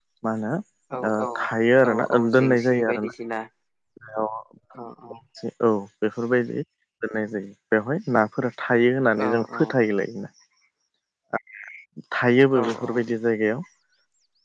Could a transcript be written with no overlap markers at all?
No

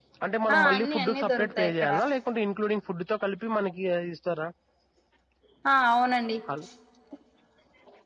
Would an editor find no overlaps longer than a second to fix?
No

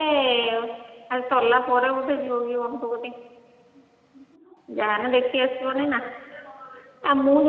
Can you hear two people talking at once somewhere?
No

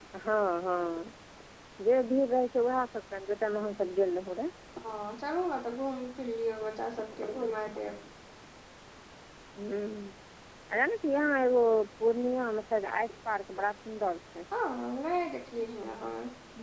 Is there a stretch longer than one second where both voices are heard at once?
No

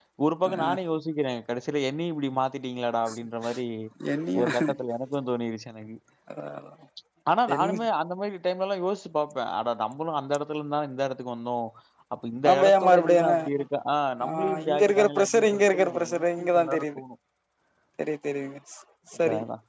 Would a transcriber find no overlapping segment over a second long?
No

